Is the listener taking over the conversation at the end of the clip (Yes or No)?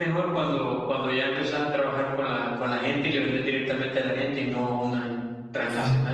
Yes